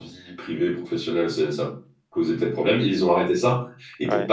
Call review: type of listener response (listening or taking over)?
listening